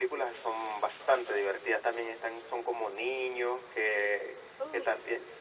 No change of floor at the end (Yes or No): Yes